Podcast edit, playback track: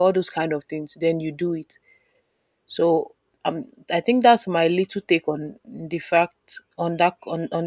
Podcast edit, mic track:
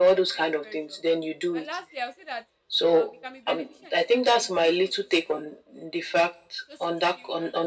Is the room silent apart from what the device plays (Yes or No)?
No